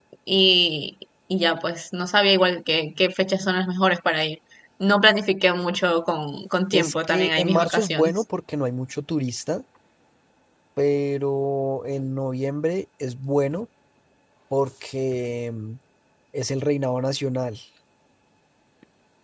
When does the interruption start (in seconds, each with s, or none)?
6.7 s